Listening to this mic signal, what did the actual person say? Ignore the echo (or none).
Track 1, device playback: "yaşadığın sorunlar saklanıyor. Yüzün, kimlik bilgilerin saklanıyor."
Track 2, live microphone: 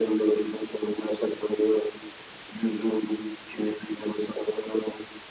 none